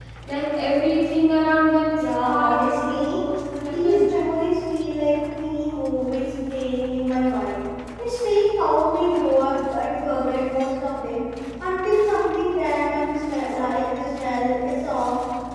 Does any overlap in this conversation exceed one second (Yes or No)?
Yes